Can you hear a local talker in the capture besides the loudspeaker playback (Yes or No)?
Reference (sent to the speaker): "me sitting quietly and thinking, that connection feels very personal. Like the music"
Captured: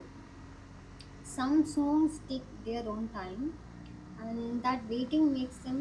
Yes